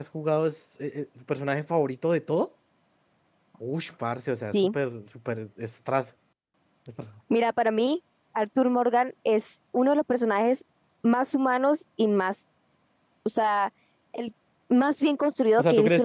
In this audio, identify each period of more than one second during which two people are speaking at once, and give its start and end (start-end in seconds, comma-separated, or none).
none